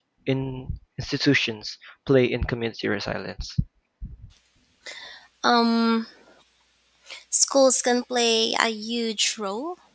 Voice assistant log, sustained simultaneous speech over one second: none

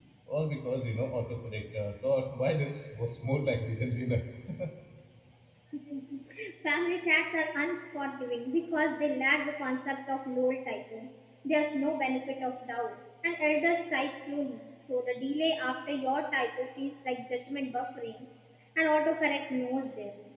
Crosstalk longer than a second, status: none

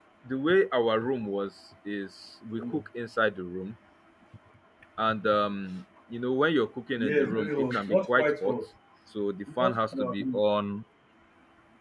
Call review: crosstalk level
present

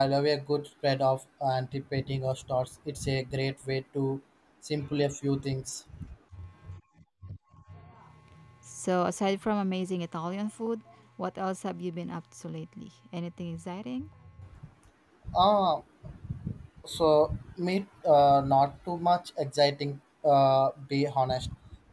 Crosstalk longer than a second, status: none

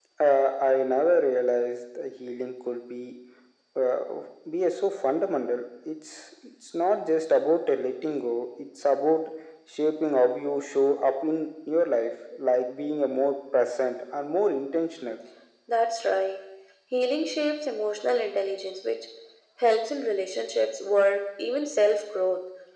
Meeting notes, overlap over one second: none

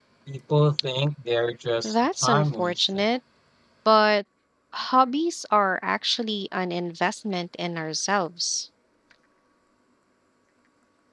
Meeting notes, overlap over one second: present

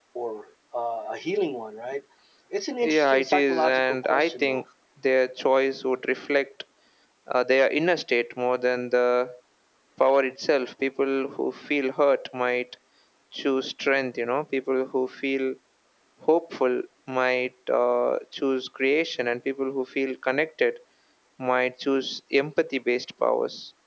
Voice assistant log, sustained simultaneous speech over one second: present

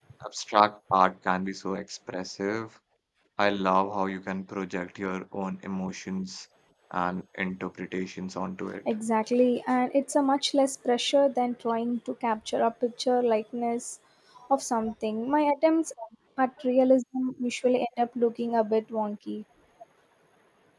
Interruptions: none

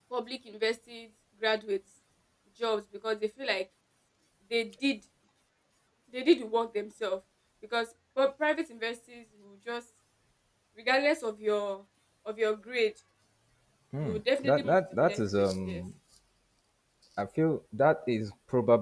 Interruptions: present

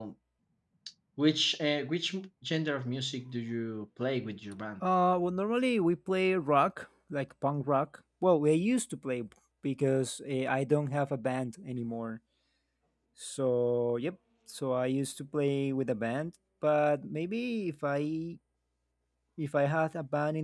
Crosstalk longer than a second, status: none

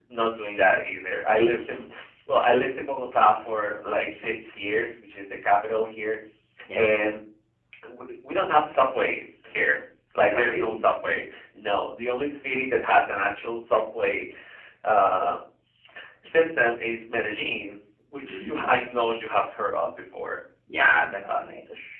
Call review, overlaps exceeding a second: none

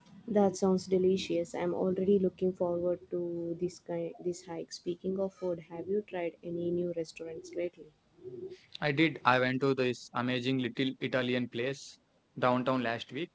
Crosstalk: none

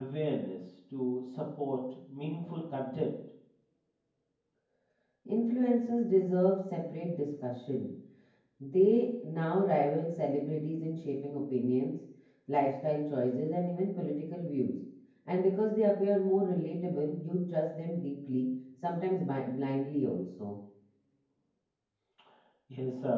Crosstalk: none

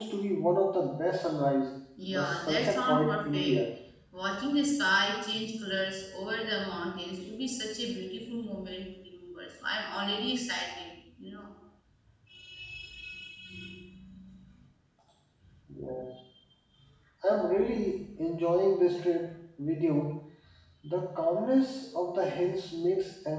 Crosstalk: present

